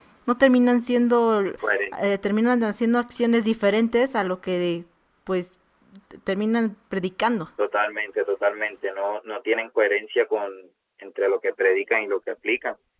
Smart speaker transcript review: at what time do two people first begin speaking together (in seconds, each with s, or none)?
none